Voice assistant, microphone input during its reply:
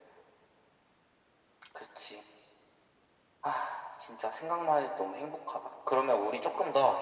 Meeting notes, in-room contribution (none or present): none